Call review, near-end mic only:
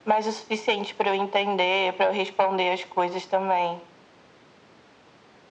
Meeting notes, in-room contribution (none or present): none